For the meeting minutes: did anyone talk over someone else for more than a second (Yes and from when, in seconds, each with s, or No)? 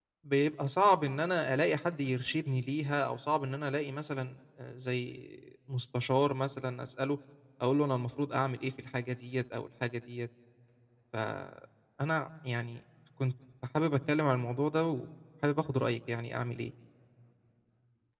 No